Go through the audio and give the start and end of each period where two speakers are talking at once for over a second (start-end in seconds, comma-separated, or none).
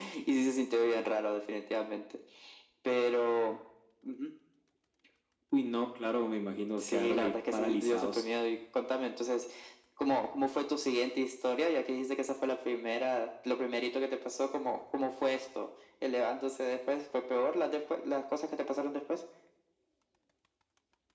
6.8-8.2